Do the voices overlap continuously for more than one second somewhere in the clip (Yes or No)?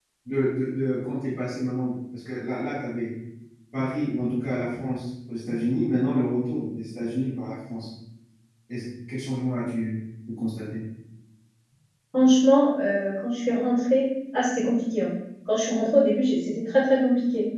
No